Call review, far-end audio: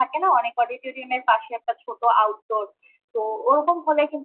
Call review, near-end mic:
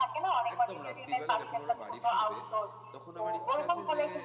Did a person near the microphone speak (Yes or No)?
Yes